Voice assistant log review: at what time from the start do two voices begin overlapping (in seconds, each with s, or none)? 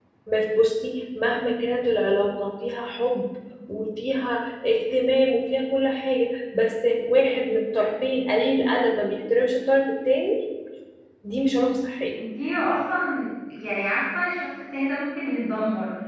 none